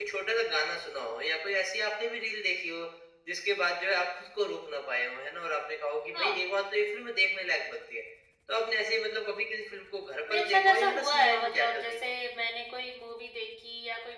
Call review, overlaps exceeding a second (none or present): present